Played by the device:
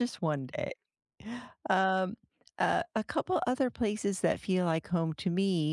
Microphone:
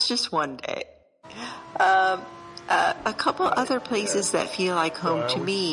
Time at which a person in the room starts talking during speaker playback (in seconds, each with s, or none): 3.4 s